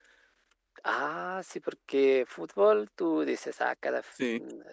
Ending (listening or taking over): listening